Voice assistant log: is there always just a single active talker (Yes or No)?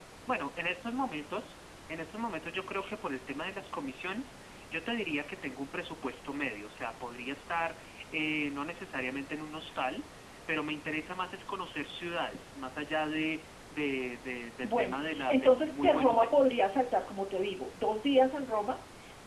No